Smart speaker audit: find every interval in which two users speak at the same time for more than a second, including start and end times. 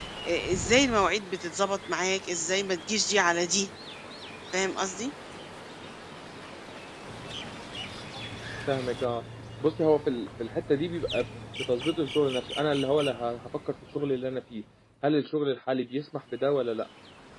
none

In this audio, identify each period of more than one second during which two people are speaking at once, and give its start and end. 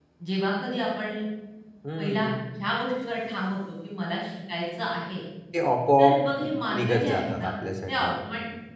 6.0-7.5

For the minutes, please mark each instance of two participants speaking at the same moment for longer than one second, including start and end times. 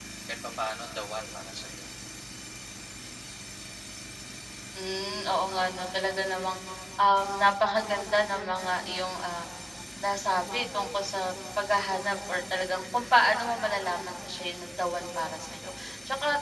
none

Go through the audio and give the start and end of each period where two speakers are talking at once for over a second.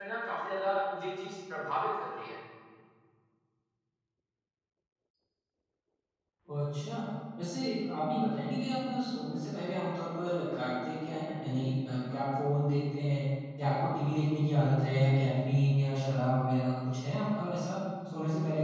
none

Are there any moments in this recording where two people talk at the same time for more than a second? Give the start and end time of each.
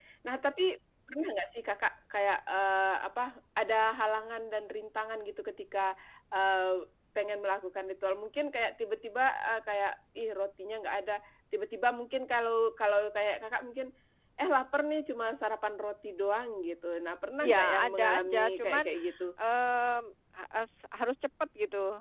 17.4-18.9

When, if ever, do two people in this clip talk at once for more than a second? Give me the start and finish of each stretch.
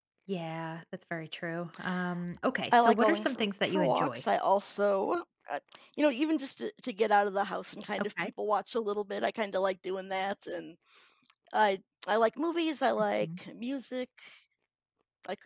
2.7-4.2

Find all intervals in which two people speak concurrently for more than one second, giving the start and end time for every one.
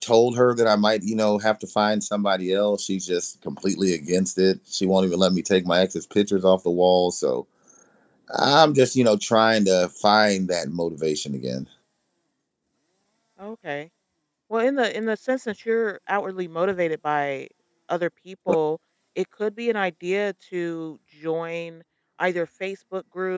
none

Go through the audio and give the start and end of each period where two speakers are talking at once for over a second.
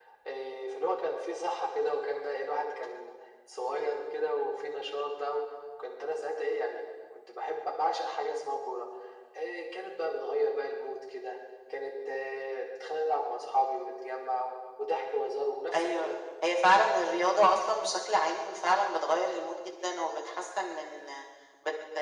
none

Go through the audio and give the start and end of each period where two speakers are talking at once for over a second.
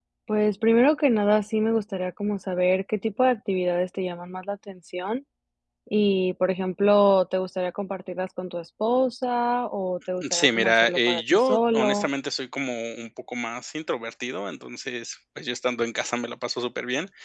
10.3-12.1

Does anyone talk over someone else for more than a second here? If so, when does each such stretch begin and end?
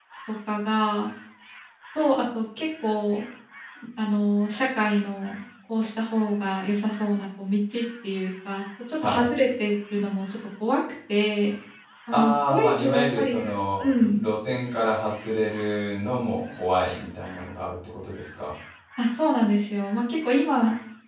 12.1-13.4

